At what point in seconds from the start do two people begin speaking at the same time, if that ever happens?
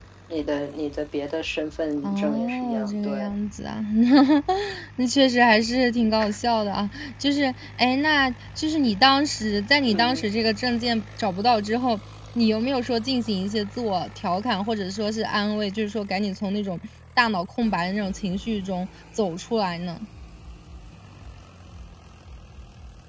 2.0 s

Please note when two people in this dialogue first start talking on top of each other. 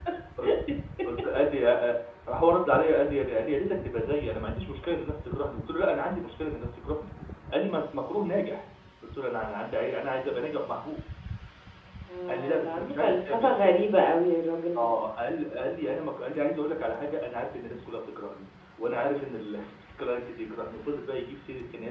12.3 s

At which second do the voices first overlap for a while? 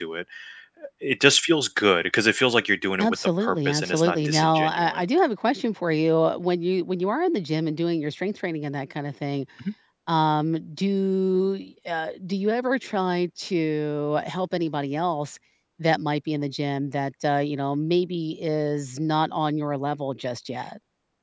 3.0 s

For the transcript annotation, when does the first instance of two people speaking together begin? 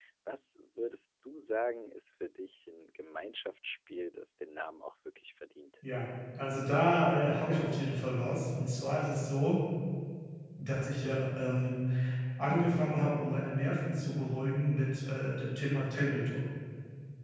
none

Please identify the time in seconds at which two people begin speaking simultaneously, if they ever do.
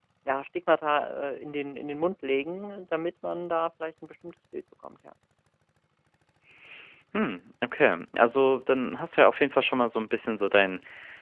none

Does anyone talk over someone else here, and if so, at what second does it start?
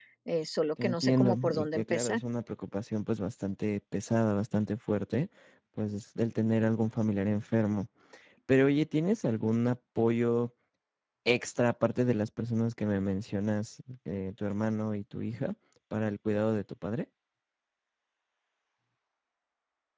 0.8 s

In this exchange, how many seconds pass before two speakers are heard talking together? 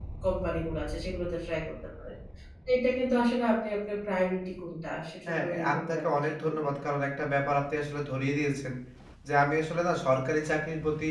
5.3 s

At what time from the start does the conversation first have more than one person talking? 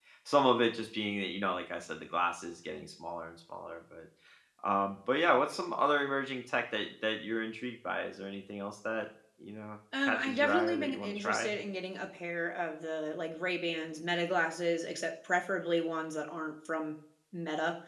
9.9 s

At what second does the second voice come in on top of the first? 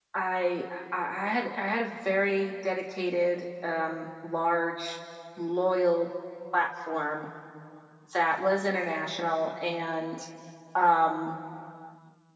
none

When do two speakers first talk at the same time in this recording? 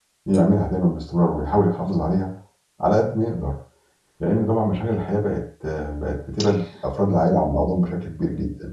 none

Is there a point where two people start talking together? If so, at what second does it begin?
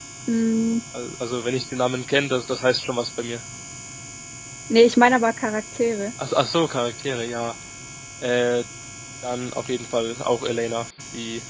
none

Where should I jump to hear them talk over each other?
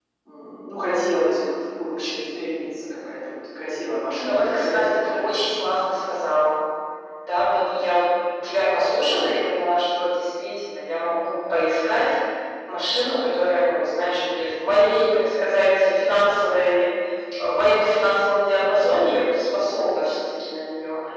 4.2 s

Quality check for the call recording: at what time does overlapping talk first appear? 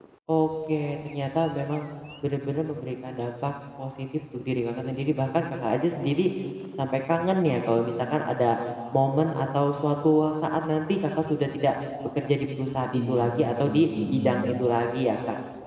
12.9 s

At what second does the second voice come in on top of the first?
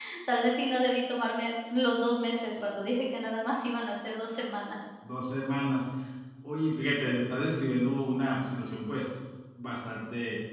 none

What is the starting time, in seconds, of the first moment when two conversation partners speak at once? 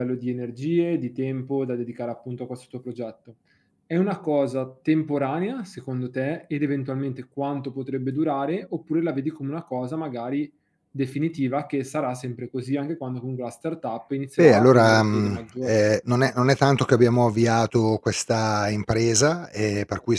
14.4 s

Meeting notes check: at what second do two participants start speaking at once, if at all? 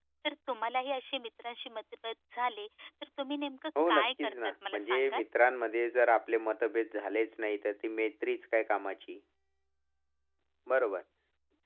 3.8 s

